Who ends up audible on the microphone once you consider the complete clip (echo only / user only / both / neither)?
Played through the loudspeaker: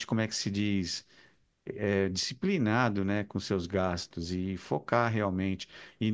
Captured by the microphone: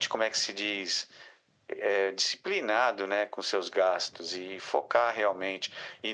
echo only